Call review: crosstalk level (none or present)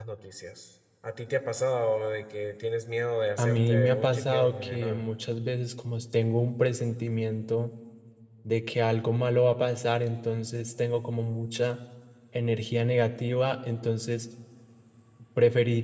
present